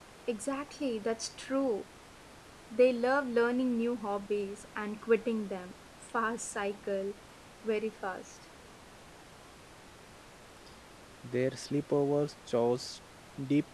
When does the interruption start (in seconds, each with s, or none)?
none